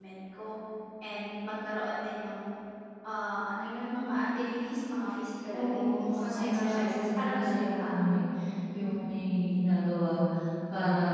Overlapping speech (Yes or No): Yes